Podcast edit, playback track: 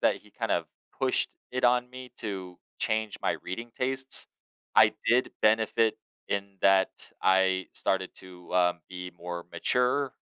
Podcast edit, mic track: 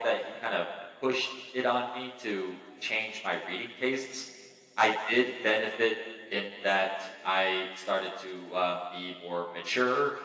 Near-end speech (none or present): none